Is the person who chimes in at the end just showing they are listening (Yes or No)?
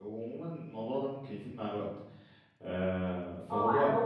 No